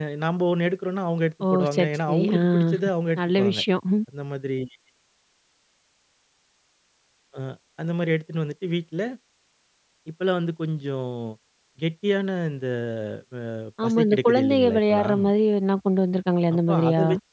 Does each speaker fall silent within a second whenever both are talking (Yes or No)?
No